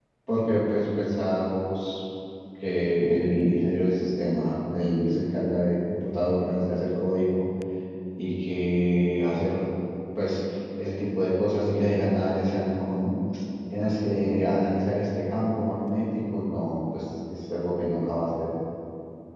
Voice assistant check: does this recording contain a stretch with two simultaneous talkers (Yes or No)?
No